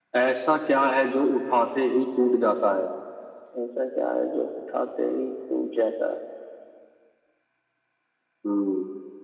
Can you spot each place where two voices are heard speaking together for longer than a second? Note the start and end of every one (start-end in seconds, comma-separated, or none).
none